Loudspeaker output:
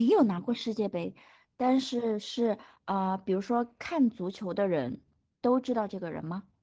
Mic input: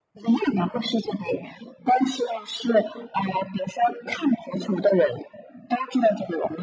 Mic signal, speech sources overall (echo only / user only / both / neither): echo only